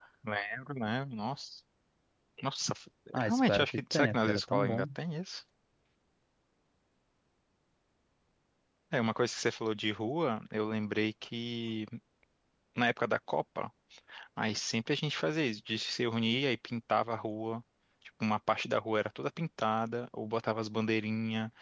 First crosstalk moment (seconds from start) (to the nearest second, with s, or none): 3 s